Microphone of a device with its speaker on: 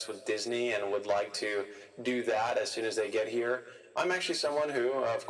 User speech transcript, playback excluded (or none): none